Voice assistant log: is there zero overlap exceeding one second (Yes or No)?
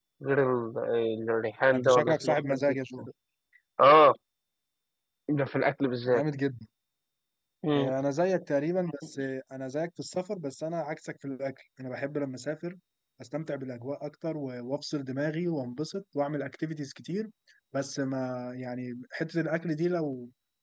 No